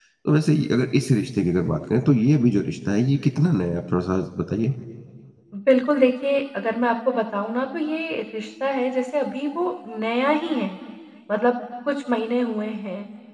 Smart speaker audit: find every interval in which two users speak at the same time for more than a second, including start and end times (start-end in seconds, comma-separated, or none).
none